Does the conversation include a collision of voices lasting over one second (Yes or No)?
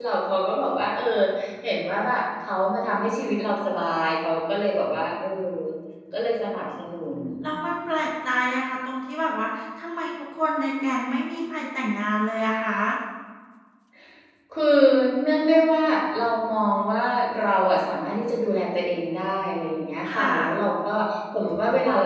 No